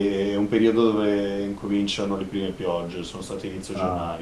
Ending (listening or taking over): taking over